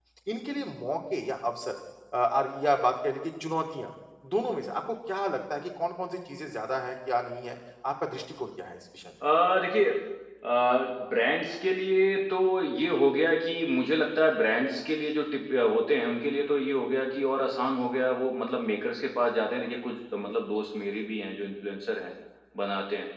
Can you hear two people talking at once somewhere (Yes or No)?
No